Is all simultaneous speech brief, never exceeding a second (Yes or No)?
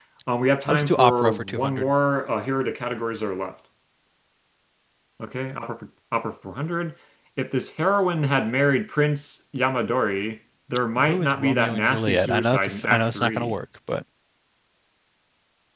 No